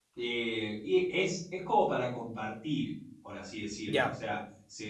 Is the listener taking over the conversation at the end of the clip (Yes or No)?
No